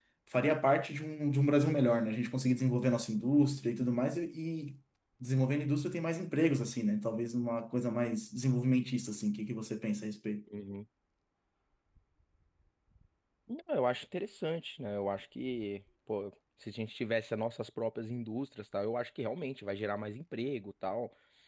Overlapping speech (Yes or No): No